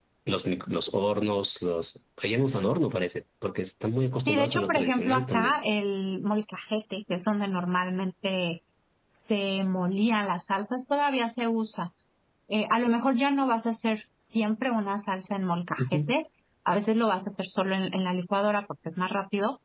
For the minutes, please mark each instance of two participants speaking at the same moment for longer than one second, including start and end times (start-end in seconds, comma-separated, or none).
4.3-5.6